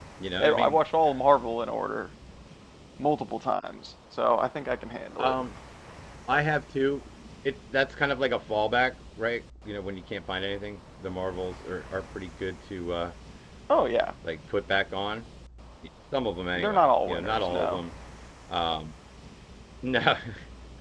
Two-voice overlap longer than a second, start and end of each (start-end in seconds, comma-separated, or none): 16.6-17.8